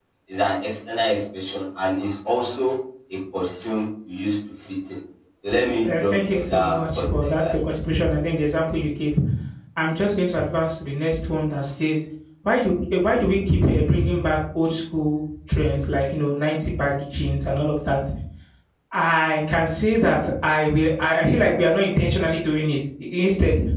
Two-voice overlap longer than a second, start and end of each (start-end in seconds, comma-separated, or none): 5.8-7.6